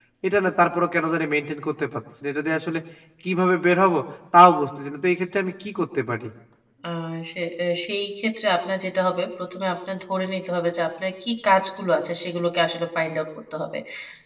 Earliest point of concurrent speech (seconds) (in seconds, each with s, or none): none